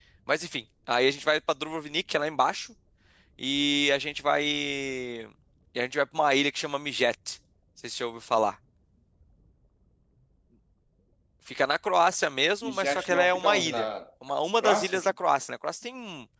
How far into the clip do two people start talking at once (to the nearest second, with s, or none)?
13 s